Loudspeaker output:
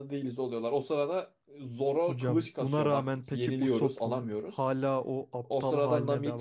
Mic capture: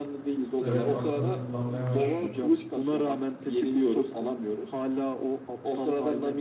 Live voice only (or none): Evet, aklını kullanmaya başlıyor.